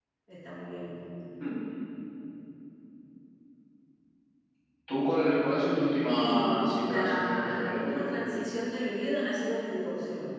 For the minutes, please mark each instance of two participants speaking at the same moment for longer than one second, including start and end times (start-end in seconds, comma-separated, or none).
6.1-8.1